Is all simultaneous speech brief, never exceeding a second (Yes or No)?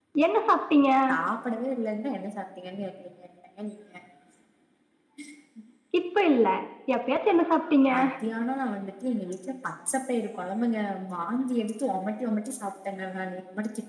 Yes